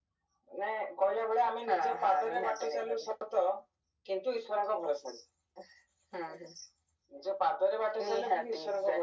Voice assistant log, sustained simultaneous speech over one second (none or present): present